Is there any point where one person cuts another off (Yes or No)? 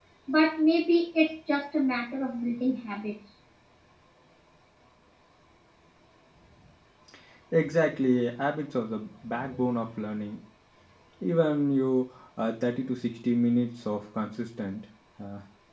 No